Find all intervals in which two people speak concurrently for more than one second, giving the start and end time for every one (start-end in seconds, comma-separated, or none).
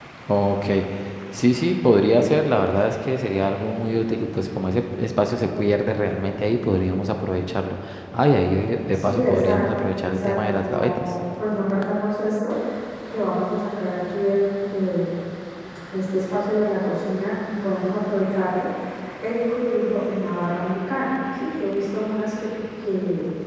8.9-11.1